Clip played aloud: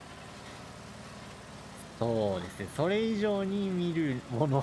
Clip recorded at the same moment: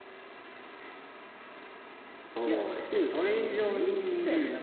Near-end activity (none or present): present